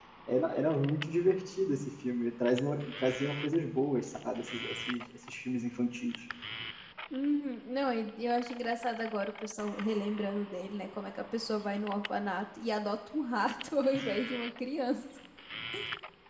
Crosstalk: none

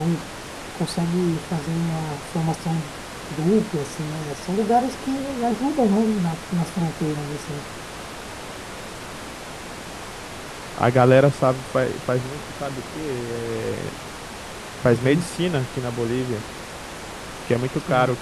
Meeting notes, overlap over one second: none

